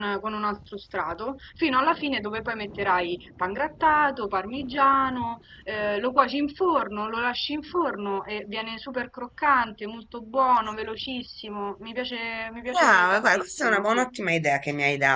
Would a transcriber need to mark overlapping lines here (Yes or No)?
Yes